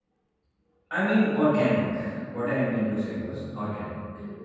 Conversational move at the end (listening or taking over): listening